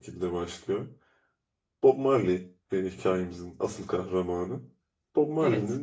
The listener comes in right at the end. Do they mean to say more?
No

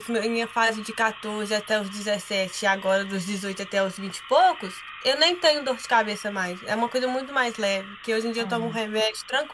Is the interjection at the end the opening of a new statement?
No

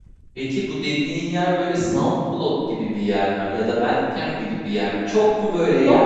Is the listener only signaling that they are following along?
Yes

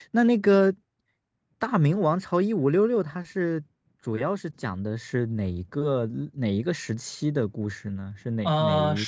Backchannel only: No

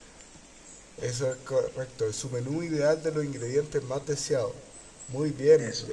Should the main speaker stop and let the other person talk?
No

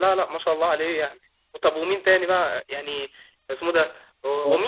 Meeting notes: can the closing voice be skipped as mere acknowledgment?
Yes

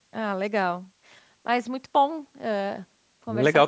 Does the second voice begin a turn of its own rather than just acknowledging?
Yes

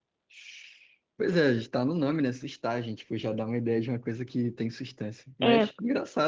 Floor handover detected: No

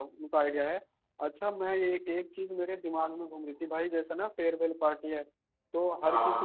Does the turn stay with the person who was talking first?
Yes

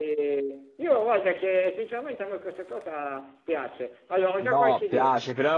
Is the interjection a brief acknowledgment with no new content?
No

